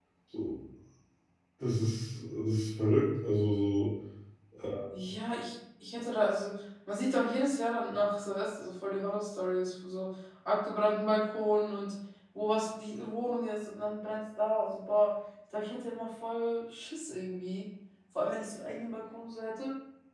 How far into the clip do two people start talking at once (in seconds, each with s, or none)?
none